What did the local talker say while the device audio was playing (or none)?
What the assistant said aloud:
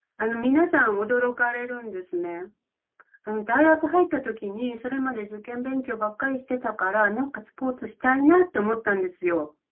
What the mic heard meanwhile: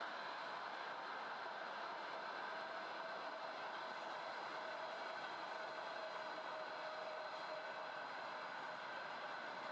none